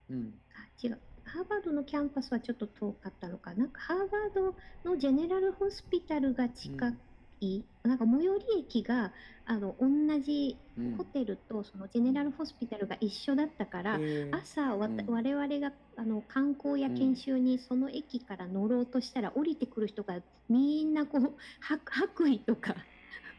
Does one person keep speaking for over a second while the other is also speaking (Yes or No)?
No